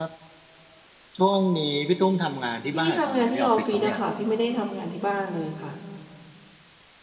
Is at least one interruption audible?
Yes, from 2.7 s

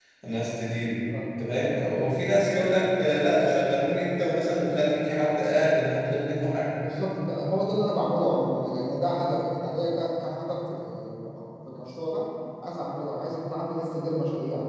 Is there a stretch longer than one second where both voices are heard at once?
No

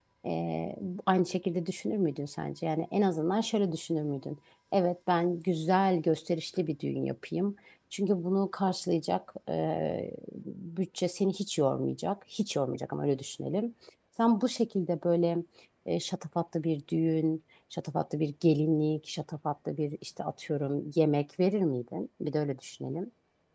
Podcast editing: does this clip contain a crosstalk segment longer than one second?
No

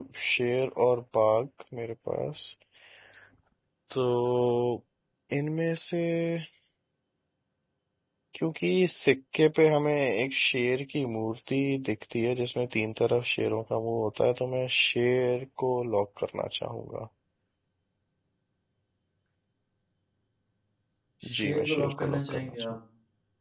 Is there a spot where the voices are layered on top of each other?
Yes, from 21.4 s

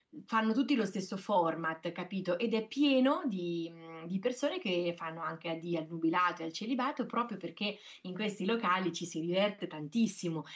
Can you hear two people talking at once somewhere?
No

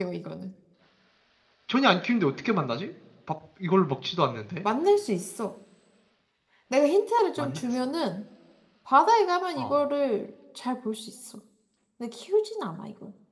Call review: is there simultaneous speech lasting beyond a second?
No

